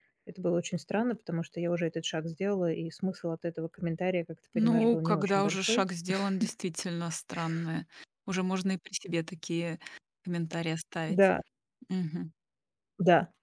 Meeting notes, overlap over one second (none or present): present